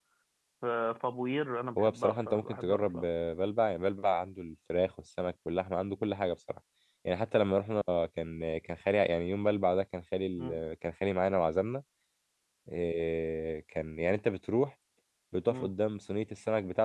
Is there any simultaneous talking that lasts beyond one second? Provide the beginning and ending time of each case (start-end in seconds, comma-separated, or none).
1.8-3.0